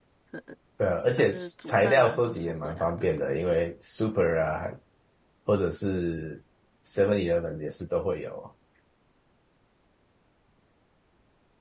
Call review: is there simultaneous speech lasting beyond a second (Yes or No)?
Yes